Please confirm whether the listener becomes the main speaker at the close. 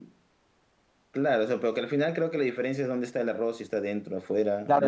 Yes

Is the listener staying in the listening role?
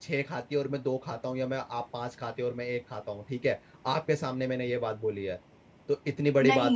No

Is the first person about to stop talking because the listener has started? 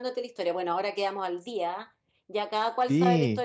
No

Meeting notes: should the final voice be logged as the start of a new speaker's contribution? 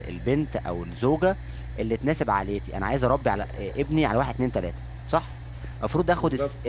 No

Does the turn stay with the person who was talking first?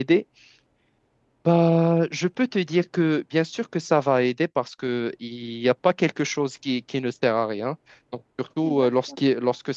Yes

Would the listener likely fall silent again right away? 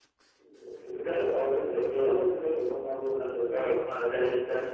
Yes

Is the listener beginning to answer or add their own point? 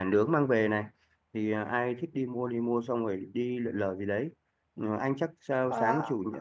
No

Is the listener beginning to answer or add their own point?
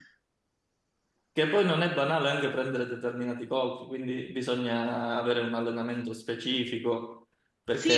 Yes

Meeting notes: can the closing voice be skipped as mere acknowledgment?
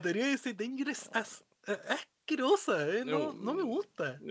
No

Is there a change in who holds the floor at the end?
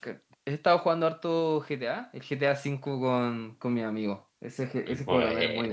No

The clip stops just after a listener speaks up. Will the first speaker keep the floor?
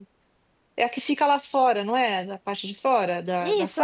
No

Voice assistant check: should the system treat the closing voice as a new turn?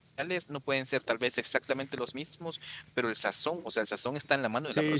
Yes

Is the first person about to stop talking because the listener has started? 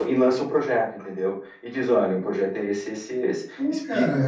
Yes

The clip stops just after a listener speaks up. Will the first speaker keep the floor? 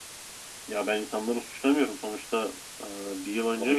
No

